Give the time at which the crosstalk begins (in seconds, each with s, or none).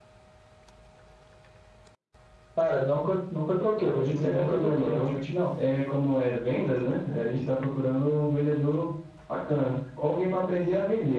3.7 s